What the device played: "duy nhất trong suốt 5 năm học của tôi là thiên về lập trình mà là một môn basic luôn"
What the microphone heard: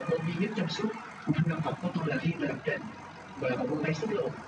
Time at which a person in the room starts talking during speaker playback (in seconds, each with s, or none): none